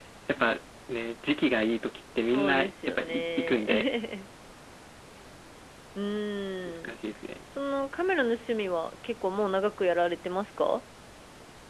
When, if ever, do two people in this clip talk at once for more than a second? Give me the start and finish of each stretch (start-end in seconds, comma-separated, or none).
2.3-3.9